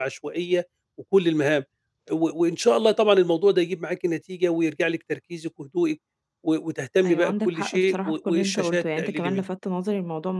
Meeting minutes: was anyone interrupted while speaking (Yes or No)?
Yes